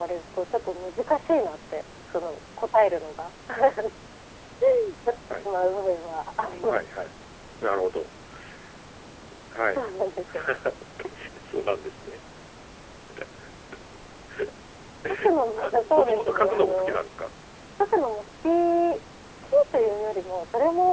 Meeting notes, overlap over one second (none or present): present